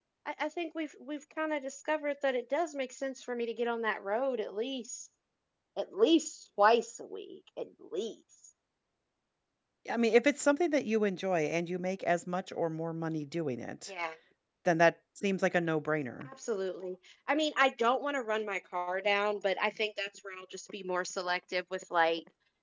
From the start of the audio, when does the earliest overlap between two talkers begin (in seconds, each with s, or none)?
none